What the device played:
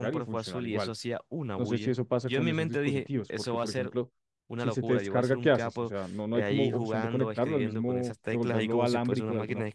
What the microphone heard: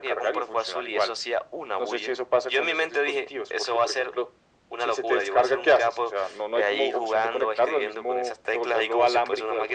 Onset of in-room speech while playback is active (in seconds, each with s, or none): none